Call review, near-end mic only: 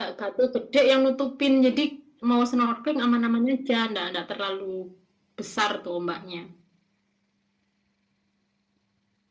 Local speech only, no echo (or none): none